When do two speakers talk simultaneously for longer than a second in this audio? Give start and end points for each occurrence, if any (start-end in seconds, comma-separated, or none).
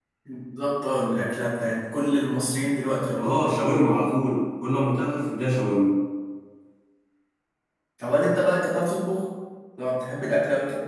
none